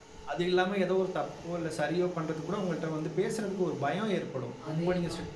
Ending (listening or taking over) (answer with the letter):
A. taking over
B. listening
B